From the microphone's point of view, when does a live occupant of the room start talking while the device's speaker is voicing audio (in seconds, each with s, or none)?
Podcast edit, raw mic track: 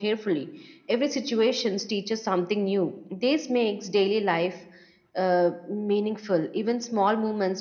none